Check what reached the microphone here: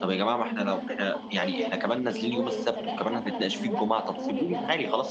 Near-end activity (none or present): present